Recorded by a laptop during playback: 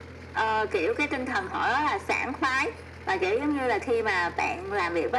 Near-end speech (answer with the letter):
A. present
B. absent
B